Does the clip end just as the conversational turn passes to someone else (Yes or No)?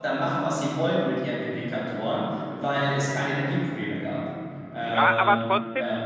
Yes